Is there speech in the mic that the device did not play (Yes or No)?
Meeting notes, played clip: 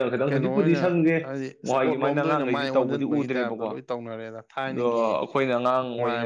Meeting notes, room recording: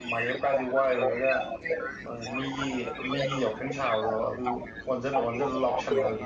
Yes